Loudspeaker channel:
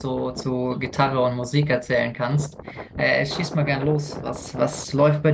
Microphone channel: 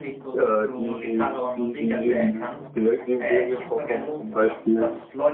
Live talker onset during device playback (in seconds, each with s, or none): 0.3 s